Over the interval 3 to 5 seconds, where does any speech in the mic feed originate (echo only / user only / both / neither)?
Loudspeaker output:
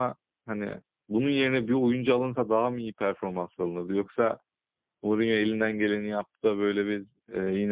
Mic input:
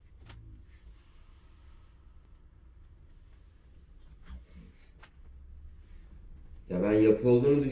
neither